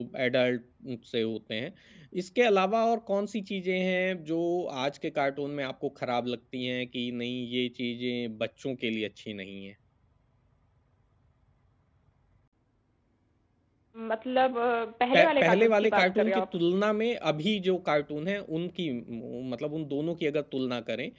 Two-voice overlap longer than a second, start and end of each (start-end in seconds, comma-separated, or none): 15.2-16.5